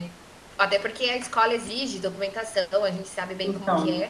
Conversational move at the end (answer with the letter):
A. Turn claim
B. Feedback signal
A